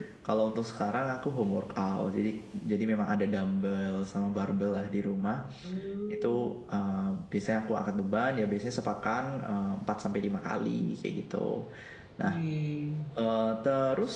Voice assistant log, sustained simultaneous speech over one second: none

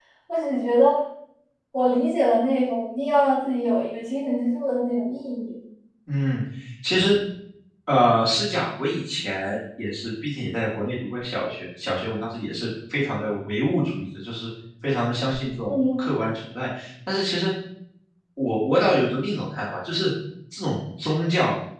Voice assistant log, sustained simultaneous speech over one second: none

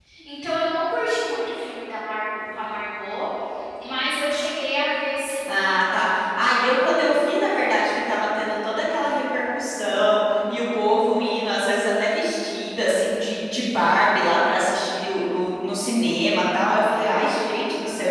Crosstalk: none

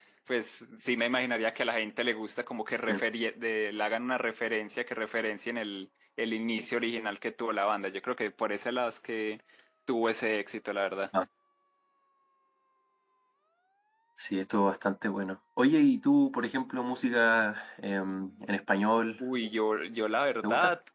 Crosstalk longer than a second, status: none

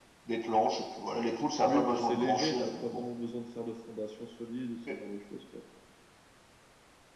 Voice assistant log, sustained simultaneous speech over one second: present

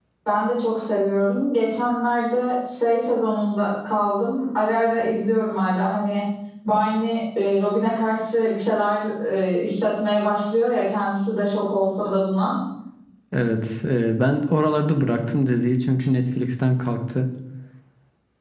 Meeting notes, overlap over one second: none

